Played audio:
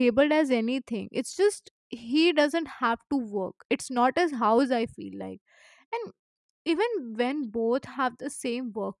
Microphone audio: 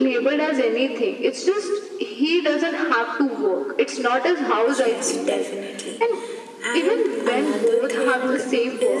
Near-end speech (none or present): present